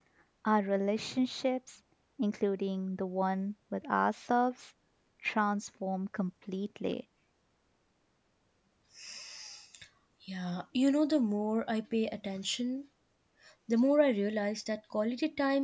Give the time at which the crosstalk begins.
none

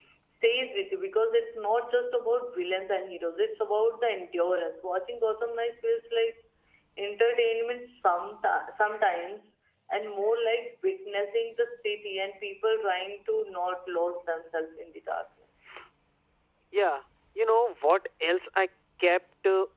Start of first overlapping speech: none

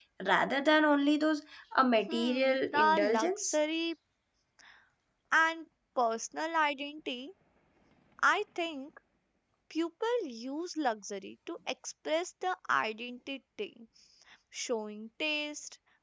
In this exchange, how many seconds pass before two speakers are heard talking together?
2 s

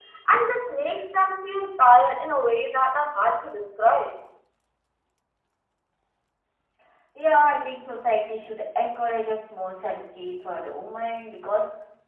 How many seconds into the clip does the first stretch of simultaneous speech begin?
none

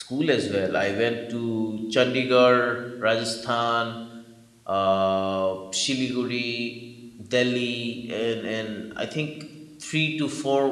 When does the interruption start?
none

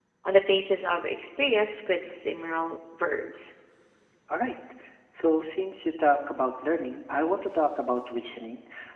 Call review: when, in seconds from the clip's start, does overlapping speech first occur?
none

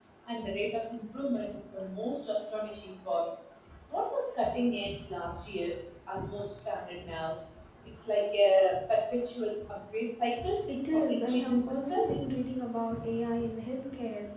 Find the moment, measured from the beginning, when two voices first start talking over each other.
11 s

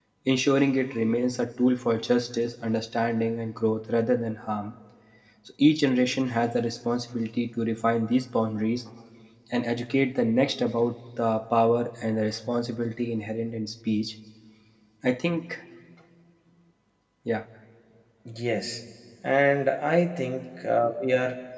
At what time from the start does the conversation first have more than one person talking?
none

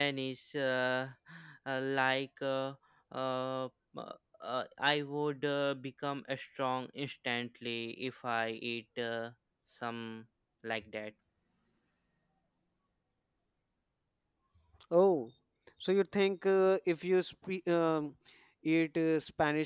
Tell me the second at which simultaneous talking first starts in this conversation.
none

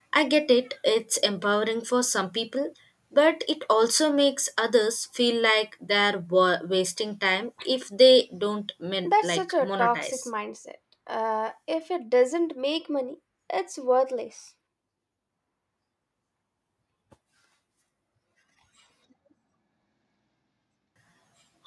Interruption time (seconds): 9 s

